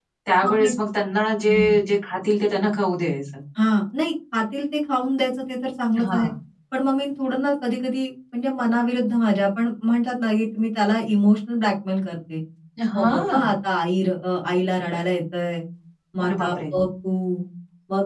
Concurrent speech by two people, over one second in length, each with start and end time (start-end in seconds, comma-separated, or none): none